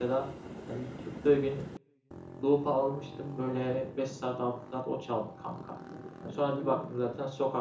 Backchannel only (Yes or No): Yes